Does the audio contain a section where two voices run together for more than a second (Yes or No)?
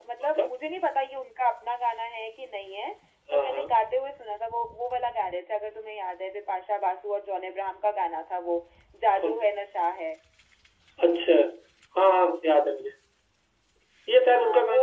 No